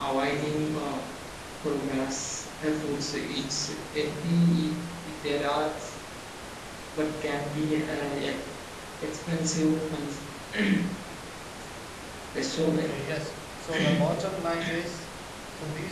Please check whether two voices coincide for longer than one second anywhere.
No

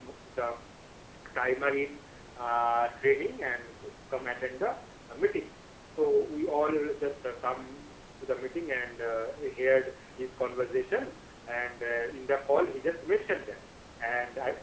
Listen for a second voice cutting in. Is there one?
No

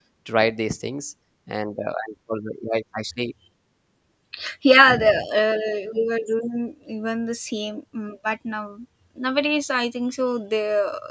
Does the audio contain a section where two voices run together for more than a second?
No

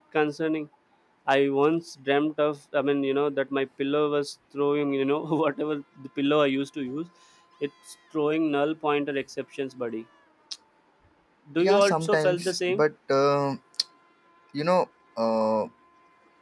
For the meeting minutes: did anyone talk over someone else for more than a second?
Yes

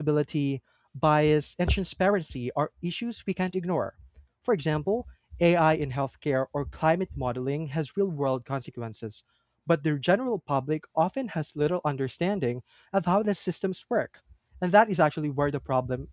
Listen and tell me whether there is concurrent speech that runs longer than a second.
No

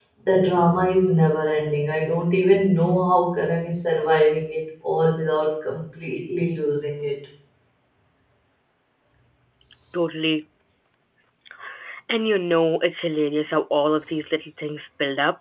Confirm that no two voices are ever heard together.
Yes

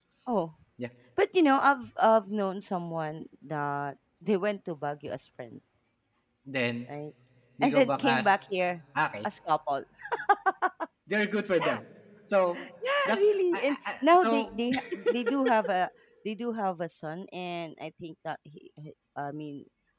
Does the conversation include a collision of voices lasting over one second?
Yes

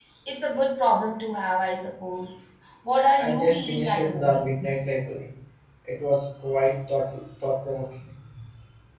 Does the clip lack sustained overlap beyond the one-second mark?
No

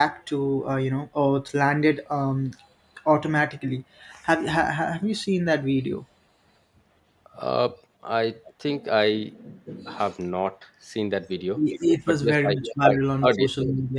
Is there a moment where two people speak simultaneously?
Yes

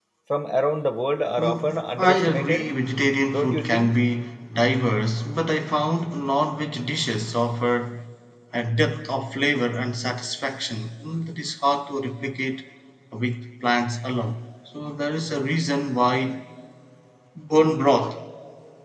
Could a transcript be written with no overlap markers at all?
No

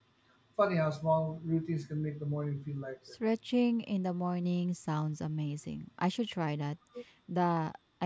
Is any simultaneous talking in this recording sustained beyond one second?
No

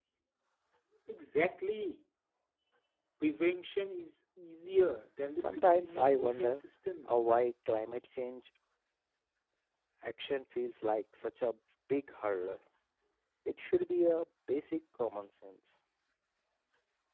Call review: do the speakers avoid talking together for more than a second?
No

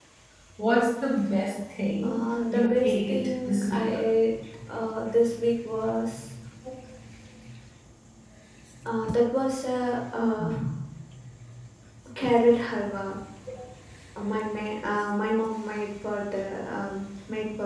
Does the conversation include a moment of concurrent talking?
Yes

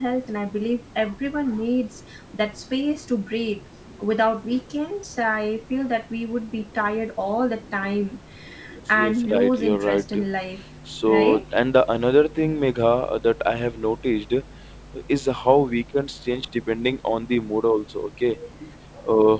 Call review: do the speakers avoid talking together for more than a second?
No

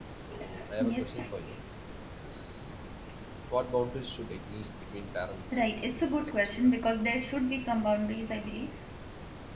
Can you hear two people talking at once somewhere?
Yes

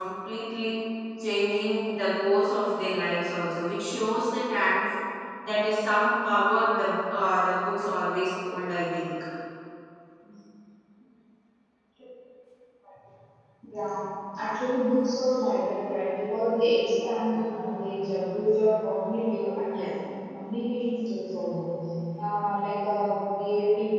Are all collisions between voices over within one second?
Yes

